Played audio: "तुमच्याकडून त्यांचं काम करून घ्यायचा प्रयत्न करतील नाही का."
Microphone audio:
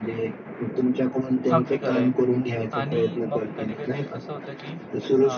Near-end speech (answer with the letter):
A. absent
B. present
B